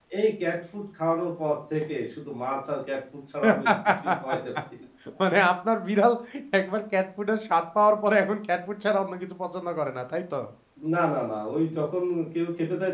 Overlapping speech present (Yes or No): No